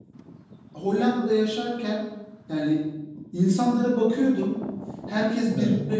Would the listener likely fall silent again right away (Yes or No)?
Yes